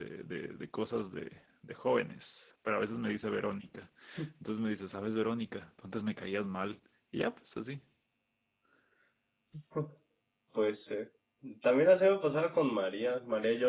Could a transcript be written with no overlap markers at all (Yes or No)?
Yes